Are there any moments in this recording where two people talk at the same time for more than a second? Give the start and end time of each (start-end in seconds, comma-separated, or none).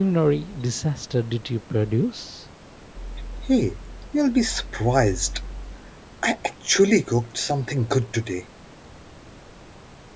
none